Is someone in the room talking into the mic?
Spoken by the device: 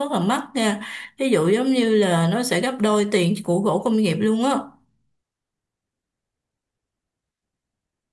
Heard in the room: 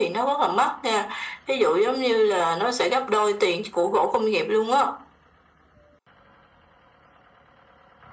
No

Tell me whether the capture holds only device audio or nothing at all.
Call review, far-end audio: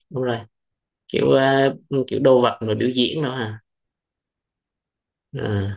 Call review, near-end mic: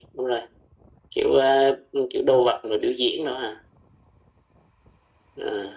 Yes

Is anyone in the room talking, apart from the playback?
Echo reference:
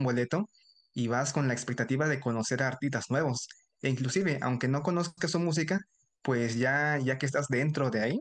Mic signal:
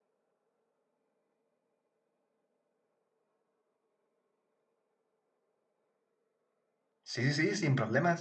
Yes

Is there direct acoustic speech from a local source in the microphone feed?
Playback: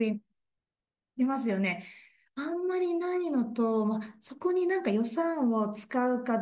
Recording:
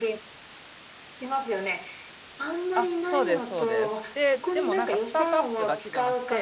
Yes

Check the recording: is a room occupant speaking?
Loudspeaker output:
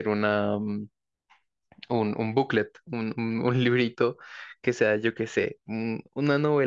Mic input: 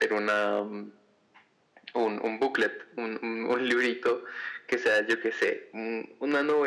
No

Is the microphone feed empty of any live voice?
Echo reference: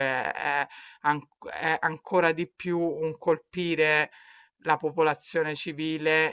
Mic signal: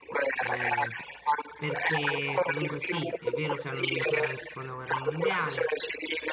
No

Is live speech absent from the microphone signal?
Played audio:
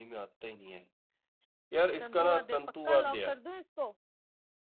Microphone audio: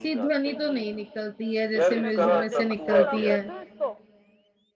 No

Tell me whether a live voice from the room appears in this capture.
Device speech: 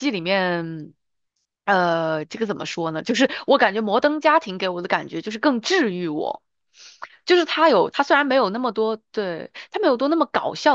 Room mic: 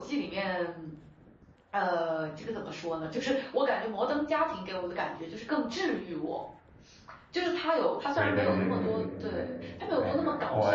Yes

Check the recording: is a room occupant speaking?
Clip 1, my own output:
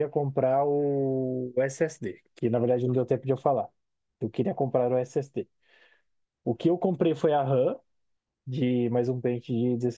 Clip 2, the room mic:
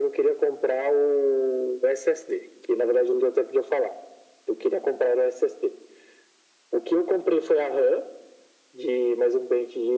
No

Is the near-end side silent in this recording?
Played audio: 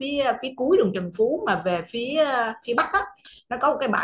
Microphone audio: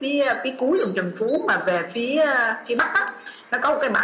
Yes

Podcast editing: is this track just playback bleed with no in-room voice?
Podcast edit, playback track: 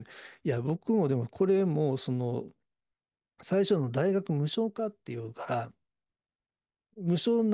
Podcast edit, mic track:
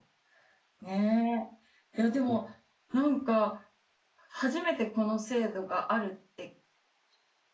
No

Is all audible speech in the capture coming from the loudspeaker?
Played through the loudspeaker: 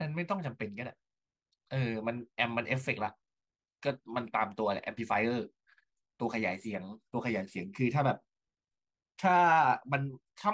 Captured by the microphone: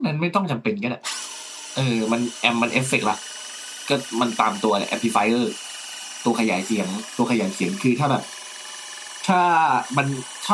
Yes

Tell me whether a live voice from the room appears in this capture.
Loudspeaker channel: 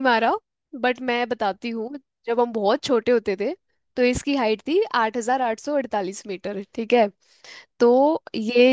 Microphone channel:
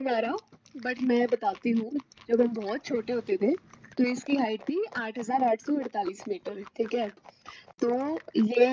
No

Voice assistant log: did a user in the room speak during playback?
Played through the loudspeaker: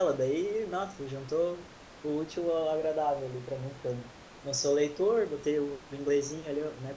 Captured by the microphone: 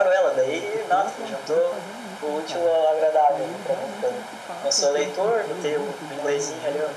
Yes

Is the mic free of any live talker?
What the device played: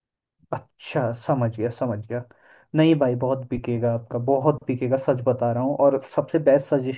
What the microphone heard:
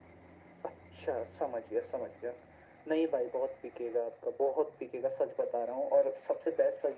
Yes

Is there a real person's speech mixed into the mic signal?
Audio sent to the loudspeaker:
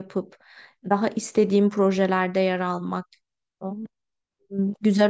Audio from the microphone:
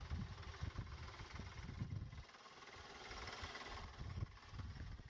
No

